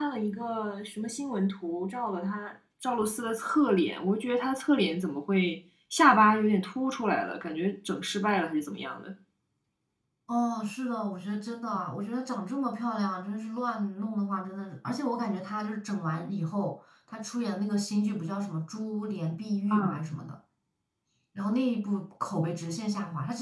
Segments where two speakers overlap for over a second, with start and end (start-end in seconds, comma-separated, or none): none